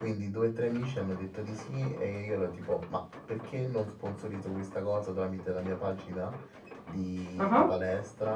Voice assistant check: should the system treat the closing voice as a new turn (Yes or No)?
No